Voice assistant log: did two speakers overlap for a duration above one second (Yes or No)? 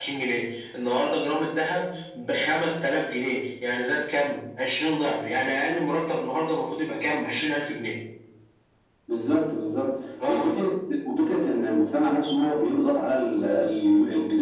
No